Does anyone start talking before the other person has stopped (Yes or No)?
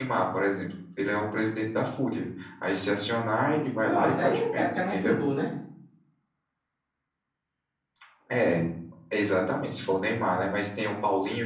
Yes